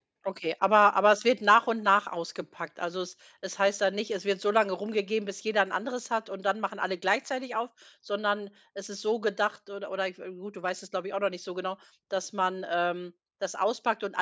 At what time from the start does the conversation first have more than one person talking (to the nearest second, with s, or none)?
none